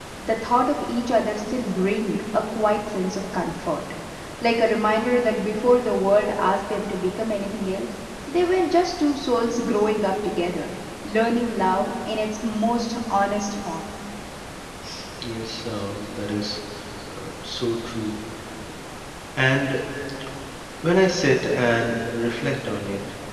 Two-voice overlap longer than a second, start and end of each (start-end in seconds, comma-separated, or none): none